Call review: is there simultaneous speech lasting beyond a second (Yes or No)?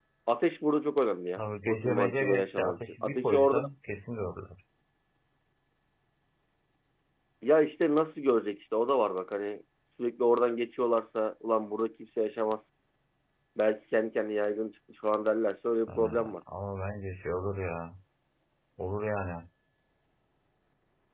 Yes